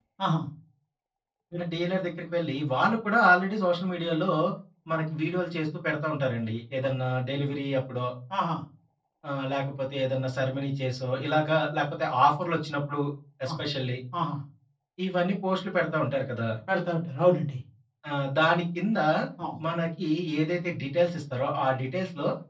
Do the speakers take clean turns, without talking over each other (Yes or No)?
Yes